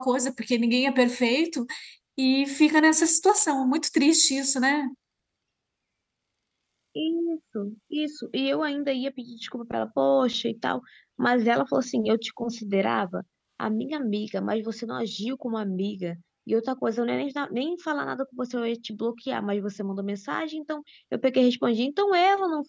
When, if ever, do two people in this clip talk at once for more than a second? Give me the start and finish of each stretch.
none

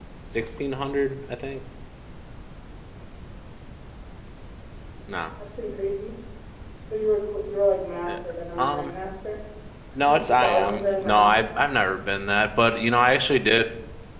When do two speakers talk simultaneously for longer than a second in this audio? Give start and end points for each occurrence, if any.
10.0-11.5

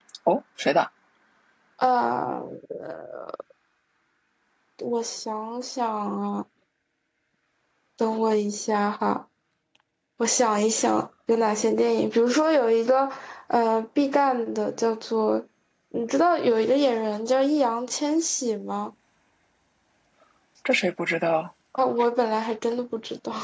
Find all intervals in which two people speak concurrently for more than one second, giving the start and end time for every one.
none

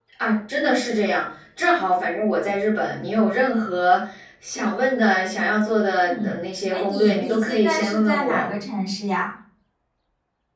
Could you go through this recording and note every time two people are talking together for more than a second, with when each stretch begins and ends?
6.7-8.5

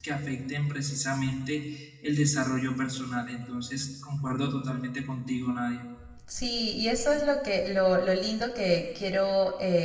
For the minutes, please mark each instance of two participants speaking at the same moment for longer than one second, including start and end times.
none

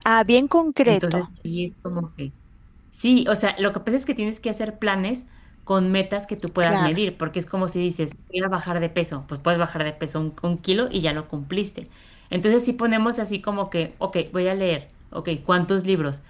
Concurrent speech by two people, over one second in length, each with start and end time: none

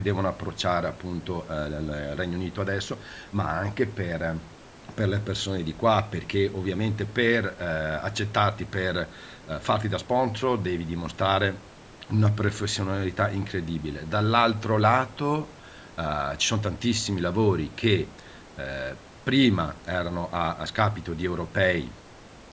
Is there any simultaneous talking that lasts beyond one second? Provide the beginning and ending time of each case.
none

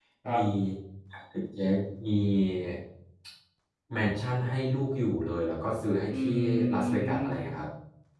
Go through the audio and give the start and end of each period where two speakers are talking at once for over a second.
6.1-7.4

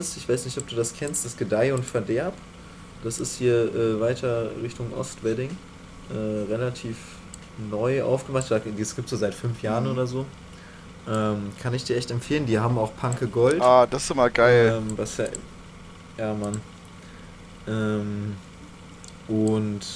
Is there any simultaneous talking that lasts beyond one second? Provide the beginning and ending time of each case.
none

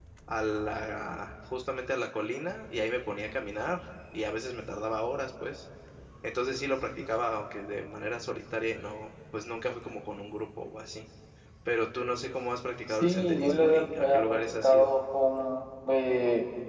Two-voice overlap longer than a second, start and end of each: 12.9-14.9

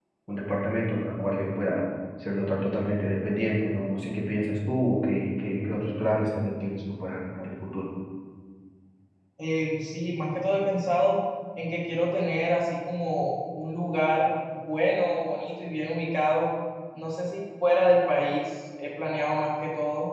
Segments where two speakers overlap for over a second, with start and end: none

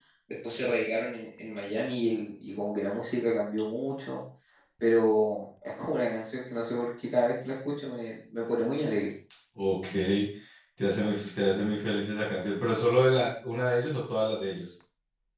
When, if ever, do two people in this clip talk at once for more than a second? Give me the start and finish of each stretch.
none

